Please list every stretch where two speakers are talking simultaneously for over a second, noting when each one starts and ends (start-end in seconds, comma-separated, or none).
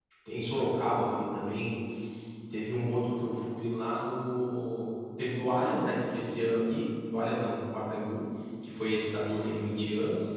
none